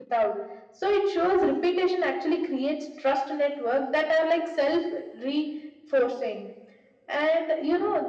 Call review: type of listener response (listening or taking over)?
listening